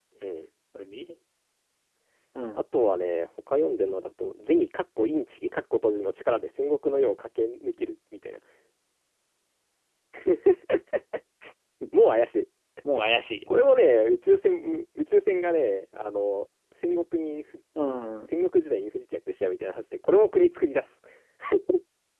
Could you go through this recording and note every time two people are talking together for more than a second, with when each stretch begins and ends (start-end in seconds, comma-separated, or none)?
none